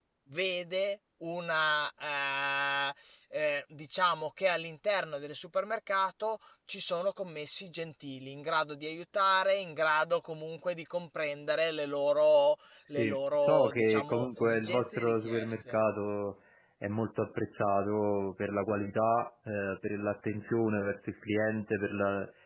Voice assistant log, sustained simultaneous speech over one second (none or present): present